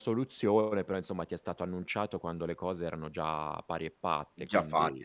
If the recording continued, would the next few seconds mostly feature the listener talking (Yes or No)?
Yes